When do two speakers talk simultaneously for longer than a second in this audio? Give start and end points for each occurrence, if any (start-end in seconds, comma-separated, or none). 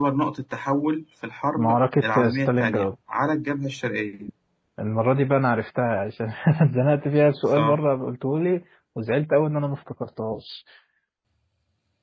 1.6-2.9